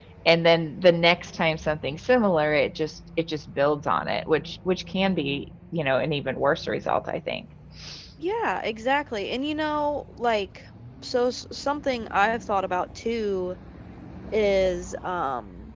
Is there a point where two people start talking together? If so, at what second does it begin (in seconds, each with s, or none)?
none